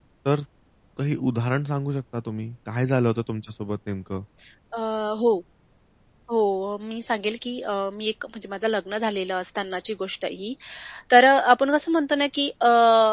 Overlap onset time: none

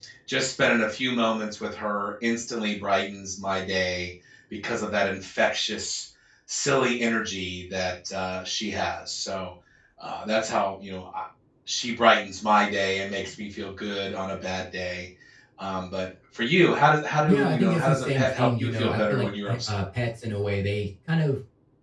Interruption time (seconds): 17.3 s

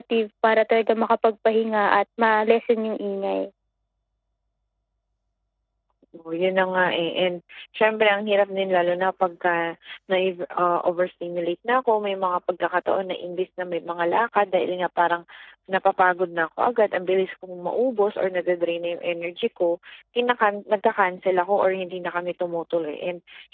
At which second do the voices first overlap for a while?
none

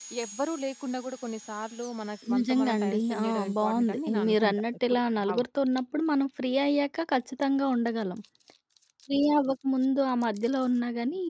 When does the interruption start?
2.3 s

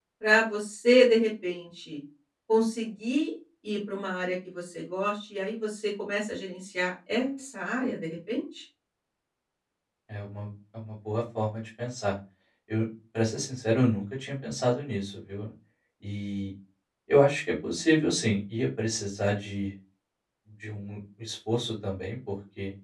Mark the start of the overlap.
none

